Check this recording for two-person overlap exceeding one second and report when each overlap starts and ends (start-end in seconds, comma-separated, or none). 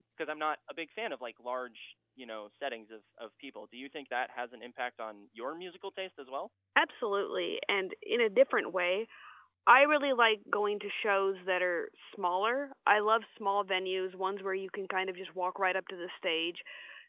none